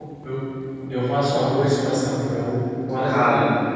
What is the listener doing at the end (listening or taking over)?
listening